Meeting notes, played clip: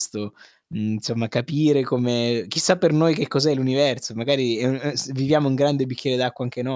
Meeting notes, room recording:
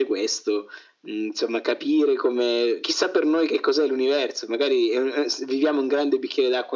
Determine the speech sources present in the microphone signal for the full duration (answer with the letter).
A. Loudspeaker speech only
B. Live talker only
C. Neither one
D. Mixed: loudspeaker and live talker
A